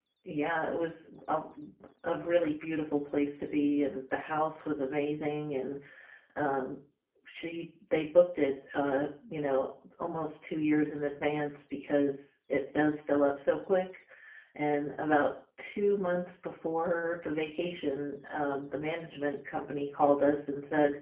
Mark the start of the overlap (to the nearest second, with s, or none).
none